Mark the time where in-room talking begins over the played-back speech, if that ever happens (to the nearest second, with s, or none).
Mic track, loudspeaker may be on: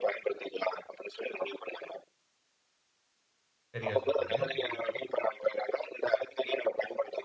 4 s